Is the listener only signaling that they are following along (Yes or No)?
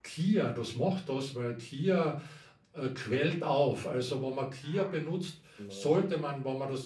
Yes